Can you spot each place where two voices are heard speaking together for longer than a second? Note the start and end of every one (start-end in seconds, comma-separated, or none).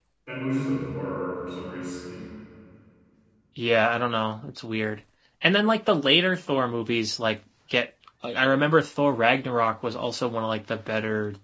none